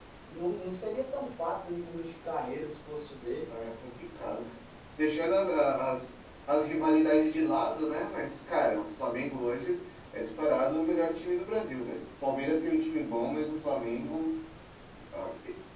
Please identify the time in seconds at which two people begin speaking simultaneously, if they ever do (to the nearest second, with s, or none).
none